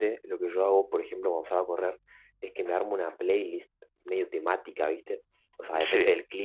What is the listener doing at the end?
listening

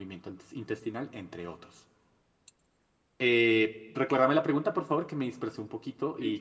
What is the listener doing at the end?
taking over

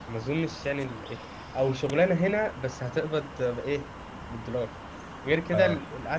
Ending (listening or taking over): listening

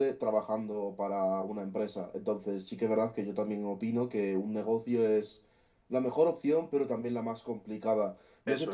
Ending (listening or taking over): listening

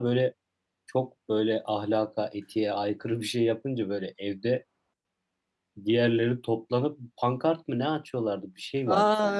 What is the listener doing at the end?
taking over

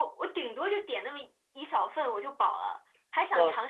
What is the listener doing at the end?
listening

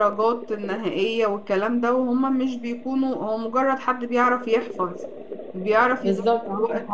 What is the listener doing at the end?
taking over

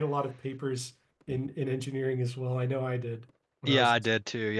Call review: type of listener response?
taking over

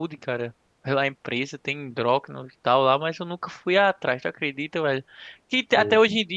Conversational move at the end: listening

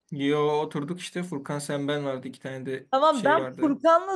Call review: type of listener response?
taking over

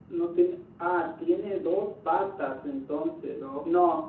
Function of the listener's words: listening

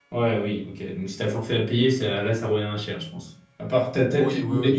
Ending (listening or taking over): taking over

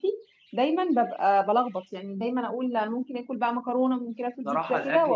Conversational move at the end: taking over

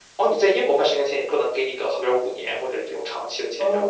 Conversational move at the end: taking over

